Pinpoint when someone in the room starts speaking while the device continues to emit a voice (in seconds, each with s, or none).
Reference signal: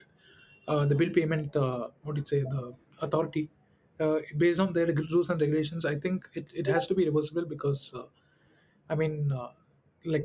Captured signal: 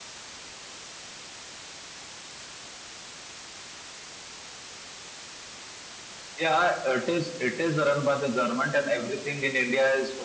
6.4 s